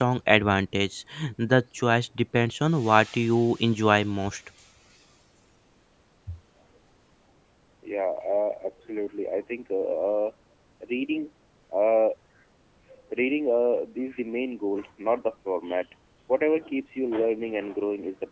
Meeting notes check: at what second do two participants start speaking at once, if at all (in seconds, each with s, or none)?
none